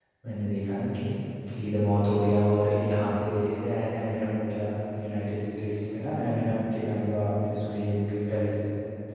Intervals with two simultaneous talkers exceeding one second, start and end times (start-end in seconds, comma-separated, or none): none